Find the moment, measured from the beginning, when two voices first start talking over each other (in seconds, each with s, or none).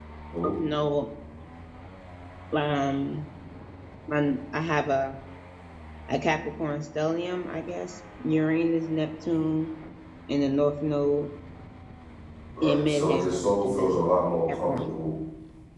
12.6 s